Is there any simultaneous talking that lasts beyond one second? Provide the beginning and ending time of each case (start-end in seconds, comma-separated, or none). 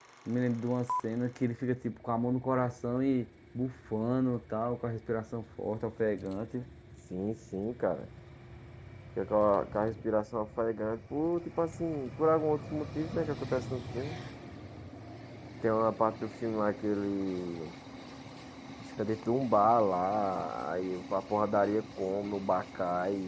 none